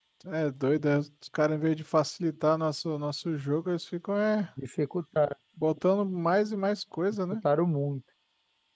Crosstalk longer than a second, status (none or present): none